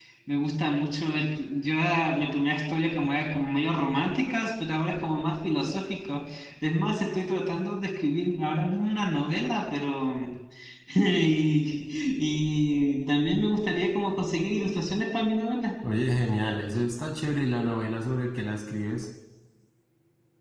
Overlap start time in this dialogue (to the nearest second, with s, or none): none